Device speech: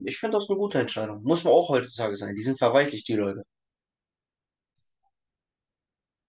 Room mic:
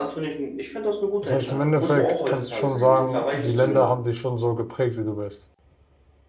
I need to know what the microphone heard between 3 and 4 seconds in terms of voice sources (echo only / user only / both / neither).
both